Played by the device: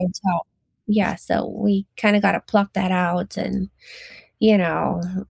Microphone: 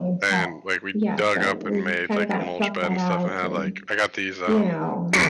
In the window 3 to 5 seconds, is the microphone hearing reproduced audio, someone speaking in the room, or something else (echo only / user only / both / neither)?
both